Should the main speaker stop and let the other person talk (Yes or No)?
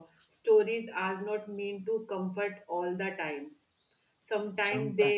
No